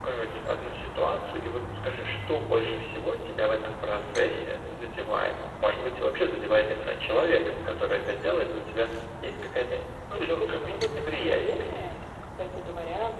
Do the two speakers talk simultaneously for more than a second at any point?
Yes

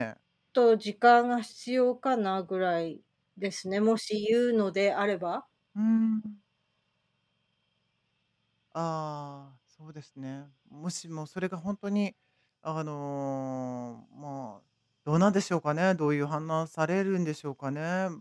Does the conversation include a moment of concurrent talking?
No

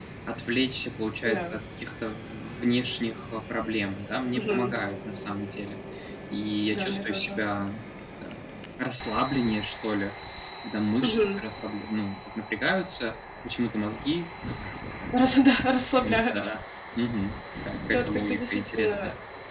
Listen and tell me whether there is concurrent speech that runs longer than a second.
Yes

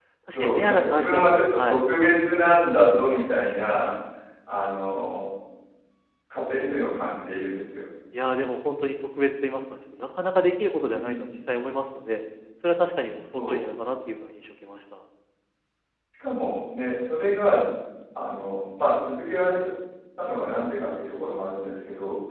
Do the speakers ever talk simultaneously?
Yes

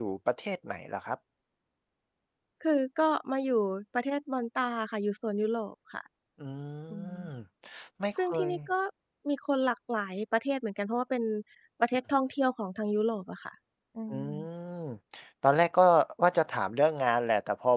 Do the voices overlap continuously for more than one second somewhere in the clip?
No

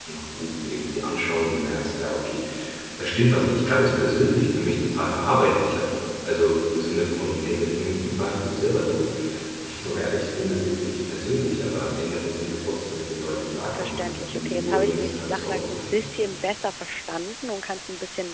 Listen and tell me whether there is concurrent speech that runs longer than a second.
Yes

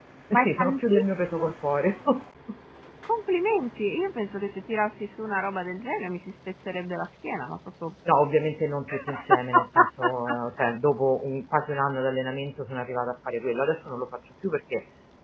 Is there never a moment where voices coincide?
No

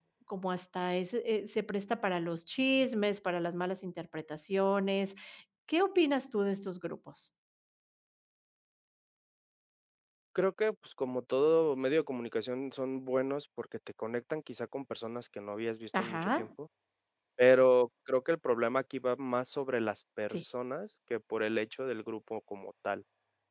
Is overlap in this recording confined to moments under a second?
Yes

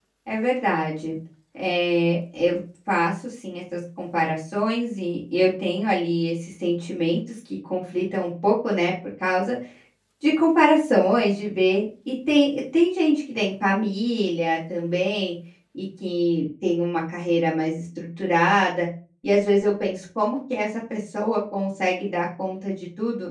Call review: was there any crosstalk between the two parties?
No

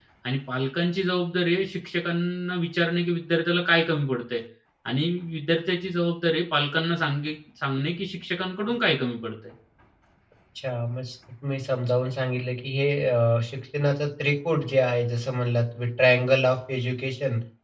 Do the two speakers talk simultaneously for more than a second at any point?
No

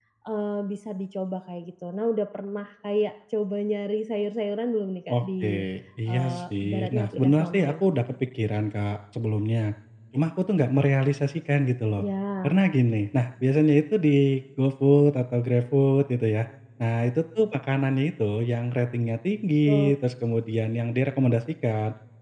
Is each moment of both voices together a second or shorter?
No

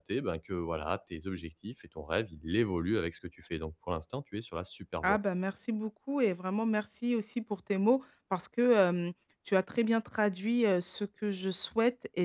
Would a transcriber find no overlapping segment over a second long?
Yes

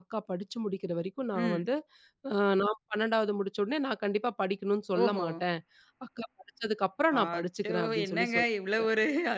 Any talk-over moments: Yes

